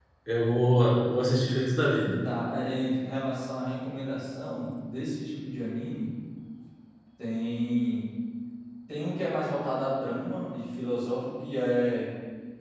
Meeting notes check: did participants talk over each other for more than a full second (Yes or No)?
No